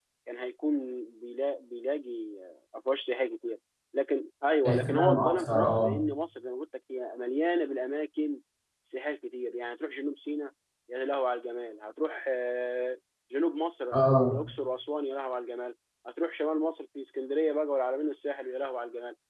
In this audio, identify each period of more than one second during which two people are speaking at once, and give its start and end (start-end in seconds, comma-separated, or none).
4.7-6.0